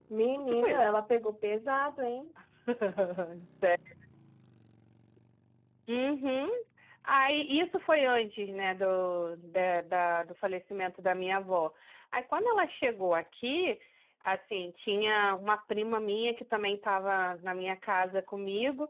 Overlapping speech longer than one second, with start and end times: none

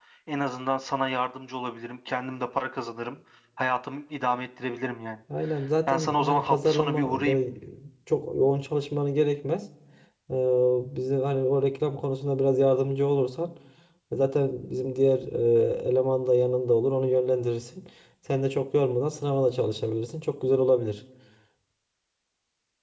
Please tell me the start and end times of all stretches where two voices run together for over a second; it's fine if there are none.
5.9-7.4

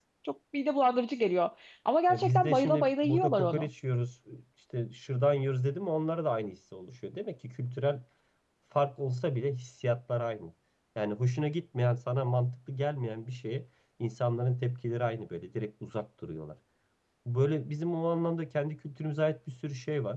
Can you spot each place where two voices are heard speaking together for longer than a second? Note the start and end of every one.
2.1-3.7

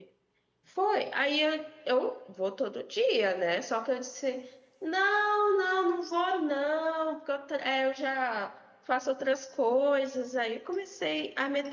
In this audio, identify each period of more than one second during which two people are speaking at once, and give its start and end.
none

